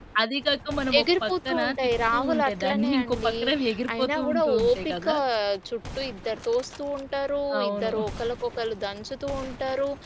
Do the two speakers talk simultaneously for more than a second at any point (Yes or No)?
Yes